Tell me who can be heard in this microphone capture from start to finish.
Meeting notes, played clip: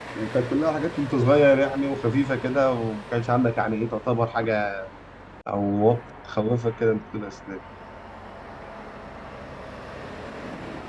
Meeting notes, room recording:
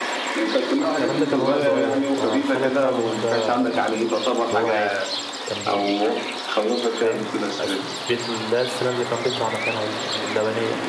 both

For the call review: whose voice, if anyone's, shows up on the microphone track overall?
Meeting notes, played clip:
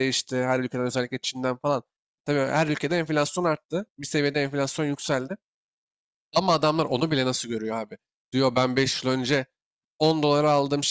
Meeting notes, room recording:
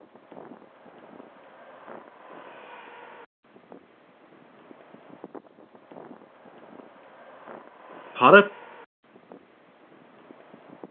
user only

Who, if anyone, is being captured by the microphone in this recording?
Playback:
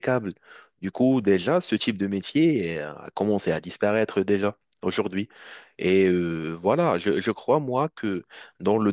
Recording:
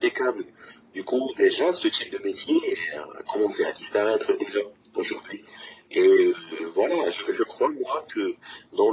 echo only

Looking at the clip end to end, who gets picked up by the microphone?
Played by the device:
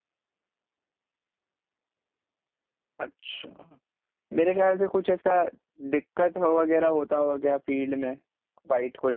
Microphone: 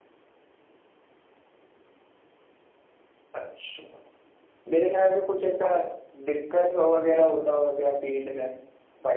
echo only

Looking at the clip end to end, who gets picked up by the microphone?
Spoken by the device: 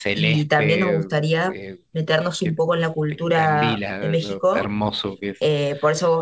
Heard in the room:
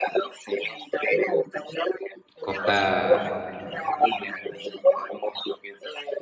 both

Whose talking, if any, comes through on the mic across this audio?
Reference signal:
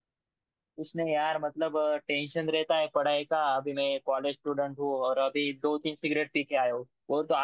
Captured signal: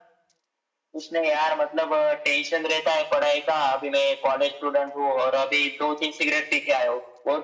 echo only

